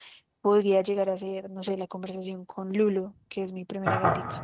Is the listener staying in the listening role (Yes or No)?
Yes